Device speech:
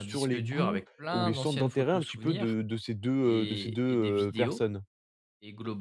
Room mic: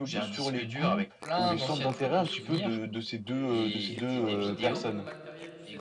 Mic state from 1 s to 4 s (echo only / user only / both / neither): both